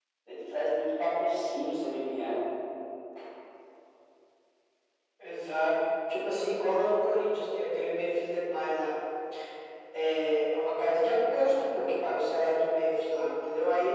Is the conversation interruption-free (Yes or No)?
Yes